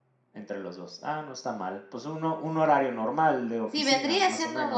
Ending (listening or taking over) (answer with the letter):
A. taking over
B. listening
A